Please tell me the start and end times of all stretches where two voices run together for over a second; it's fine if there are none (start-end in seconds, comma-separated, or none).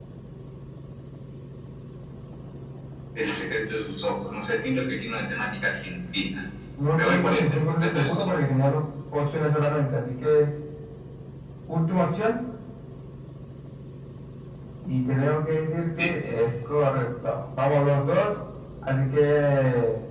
7.0-8.3